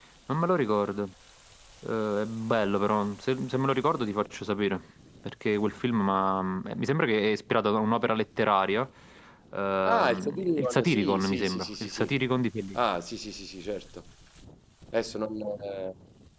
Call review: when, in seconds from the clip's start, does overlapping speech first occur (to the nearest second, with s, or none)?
10 s